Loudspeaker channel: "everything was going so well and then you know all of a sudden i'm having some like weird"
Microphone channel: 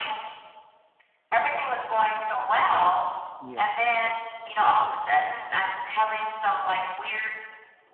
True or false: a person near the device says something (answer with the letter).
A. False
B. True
B